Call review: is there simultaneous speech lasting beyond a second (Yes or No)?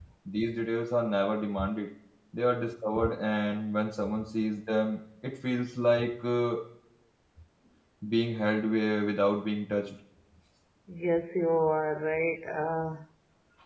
No